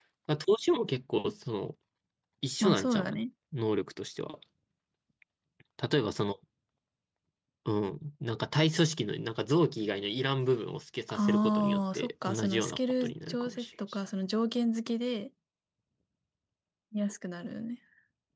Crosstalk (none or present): present